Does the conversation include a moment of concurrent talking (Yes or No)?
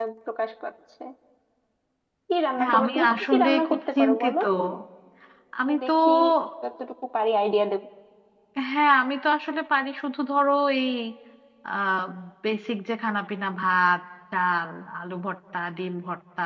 Yes